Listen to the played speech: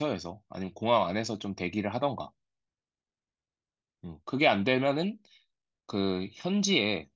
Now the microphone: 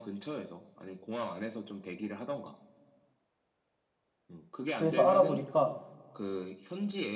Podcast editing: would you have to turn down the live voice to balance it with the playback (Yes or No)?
Yes